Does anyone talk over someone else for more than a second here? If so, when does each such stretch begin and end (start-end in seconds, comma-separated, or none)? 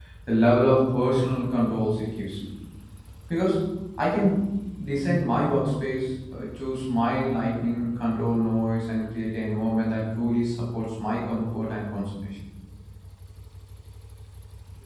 none